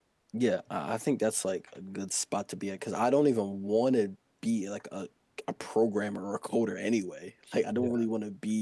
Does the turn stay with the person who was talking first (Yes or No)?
Yes